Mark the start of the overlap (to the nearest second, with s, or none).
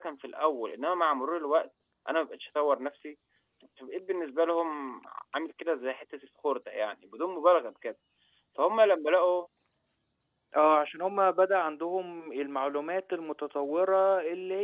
none